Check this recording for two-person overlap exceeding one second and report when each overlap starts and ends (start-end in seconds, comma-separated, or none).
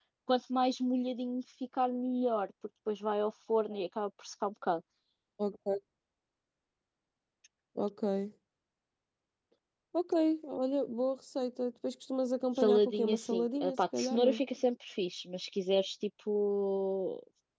12.6-14.4